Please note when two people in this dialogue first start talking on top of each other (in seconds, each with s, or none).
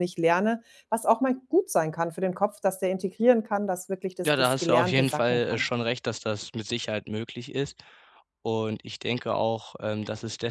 4.2 s